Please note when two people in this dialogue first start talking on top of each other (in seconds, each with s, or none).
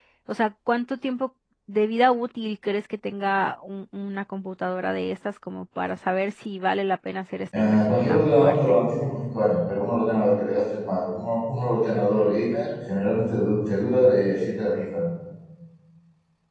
7.5 s